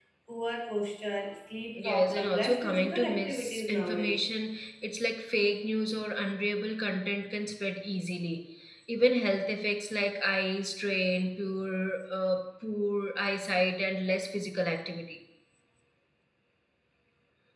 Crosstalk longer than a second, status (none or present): present